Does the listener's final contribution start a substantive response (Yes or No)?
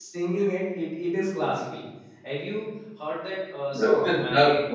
Yes